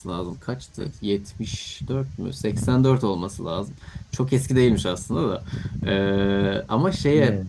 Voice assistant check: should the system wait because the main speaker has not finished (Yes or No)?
Yes